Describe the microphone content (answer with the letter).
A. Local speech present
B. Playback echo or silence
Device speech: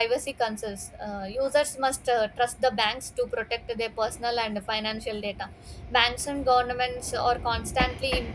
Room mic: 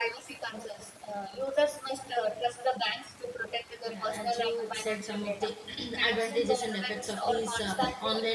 A